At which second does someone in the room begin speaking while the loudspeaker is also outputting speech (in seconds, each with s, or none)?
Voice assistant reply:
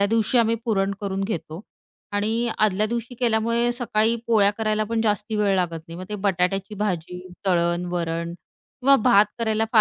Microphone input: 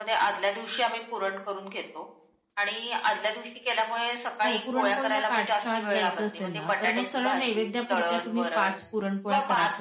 4.4 s